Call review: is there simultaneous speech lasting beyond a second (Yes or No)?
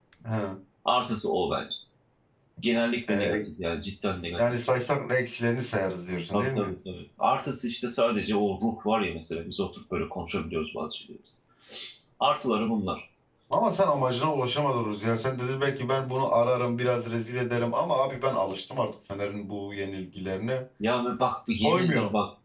No